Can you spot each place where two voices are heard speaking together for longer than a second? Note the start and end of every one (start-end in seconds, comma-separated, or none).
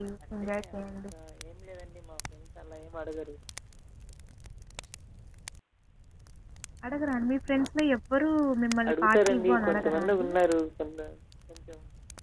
8.9-10.3